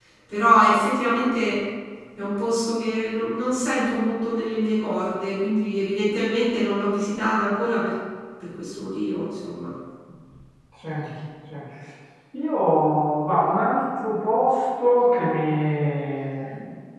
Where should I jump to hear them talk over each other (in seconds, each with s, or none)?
none